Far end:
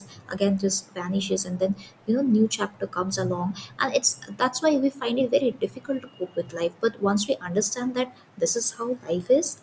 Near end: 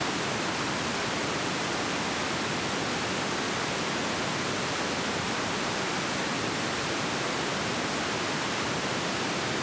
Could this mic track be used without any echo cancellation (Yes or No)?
Yes